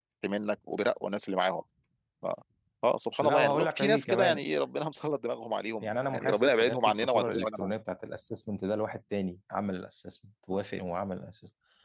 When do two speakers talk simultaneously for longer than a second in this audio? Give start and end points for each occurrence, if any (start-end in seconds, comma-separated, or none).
3.2-4.5, 5.8-7.7